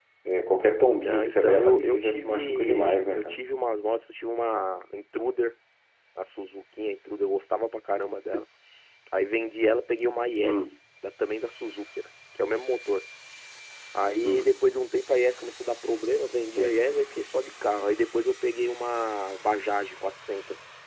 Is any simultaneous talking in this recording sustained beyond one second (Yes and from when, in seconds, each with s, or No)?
Yes, from 0.9 s